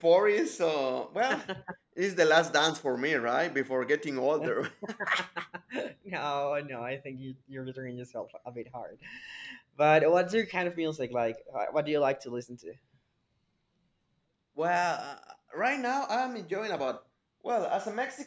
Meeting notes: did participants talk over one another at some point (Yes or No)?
No